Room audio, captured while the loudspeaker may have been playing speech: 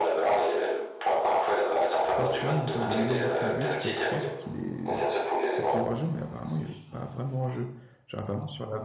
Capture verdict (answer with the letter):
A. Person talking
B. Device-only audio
A